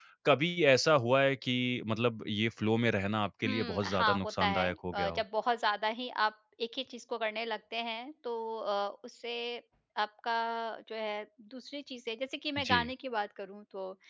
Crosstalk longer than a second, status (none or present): present